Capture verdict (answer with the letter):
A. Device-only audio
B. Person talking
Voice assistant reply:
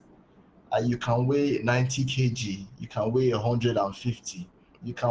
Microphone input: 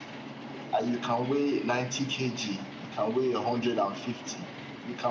A